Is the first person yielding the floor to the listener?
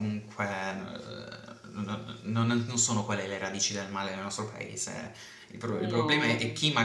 No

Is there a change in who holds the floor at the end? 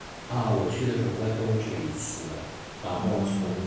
No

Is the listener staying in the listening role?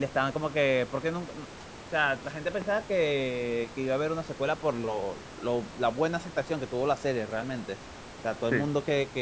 Yes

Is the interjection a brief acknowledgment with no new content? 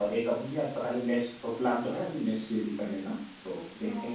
No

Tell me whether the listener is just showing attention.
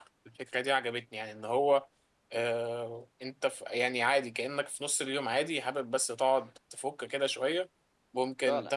Yes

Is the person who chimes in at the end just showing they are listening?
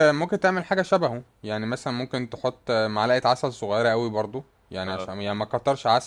Yes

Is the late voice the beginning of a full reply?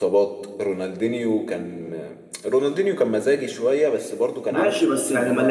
Yes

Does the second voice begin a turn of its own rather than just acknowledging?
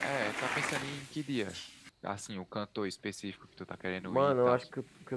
Yes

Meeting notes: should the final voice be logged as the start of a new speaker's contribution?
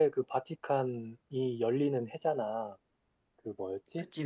No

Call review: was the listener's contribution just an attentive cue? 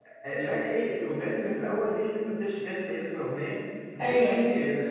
Yes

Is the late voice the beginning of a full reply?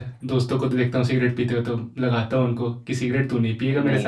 Yes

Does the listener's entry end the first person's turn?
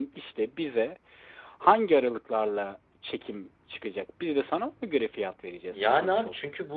Yes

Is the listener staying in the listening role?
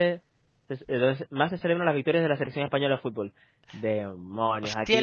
No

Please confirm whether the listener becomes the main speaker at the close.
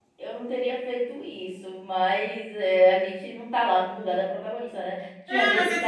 Yes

